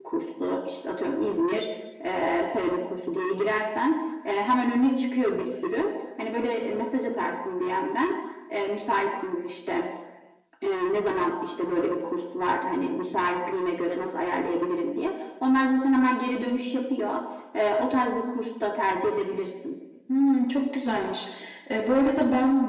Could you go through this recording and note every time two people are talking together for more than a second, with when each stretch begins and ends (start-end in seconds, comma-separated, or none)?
none